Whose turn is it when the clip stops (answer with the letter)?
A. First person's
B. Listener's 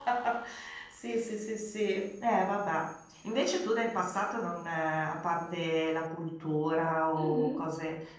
A